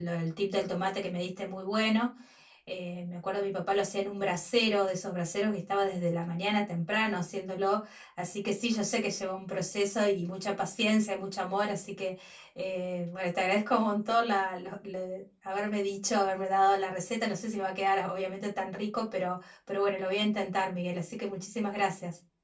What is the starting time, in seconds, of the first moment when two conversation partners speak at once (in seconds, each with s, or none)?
none